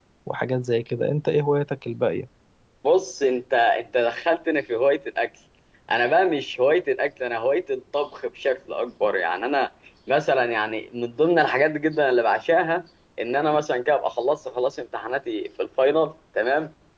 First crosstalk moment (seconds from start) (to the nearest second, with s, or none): none